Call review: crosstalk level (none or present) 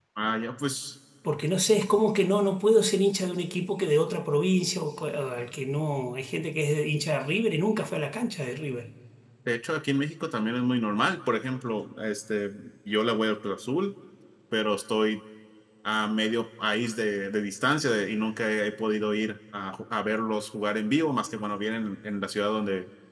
none